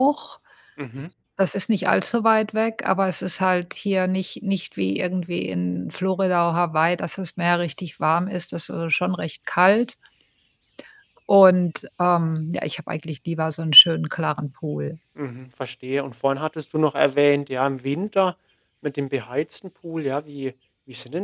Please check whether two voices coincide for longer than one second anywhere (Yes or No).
No